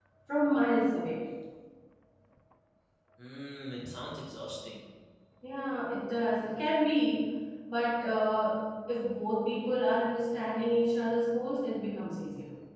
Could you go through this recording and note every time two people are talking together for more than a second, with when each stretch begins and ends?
none

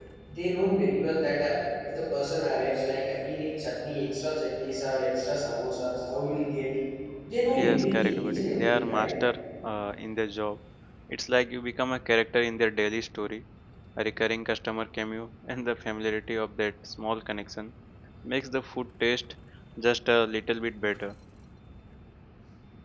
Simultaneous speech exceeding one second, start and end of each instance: 7.6-9.1

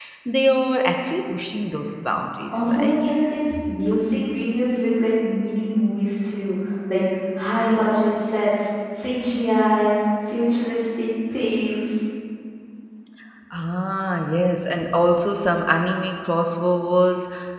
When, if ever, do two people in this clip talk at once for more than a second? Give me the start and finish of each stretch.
none

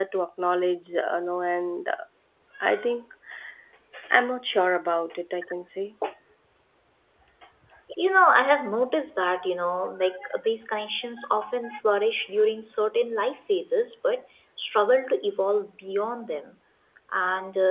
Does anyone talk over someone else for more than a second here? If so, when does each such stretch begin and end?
none

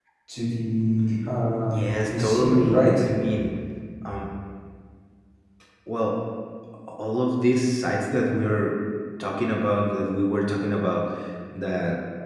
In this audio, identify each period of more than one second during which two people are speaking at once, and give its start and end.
1.7-3.0

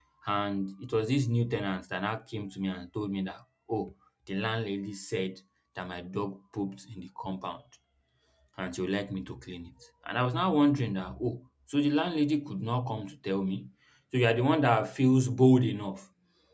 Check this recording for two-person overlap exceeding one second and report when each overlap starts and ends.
none

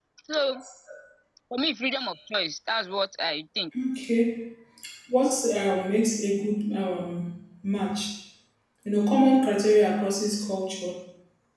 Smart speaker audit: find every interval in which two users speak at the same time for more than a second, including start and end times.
none

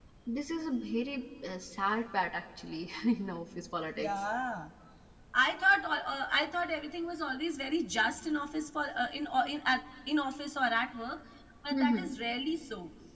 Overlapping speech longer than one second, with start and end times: none

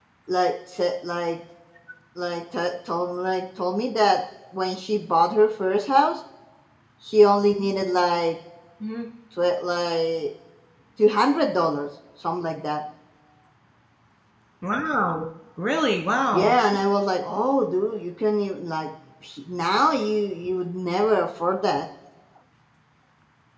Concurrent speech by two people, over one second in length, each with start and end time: none

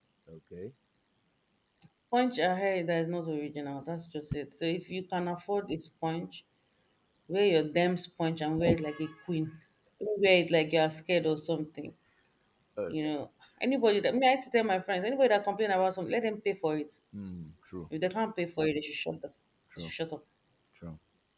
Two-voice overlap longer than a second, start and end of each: none

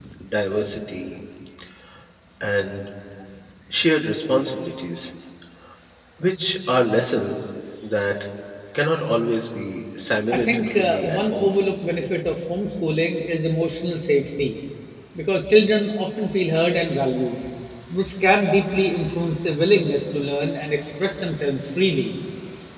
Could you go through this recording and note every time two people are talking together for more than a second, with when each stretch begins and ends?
10.3-11.5

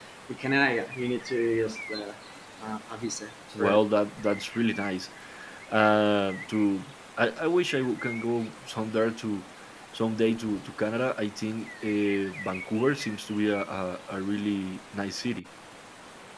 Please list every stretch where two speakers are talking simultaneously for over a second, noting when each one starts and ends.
none

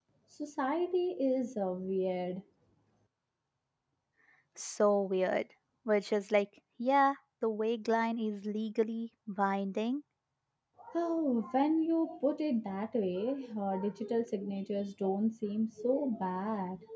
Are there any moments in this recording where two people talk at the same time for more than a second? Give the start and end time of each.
none

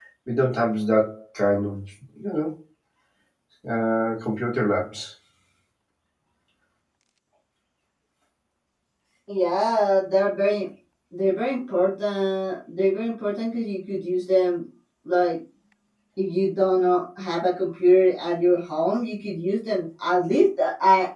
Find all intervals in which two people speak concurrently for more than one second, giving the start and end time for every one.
none

